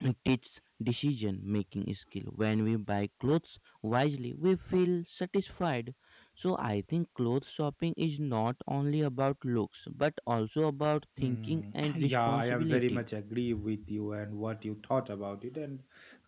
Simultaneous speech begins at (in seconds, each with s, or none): 11.2 s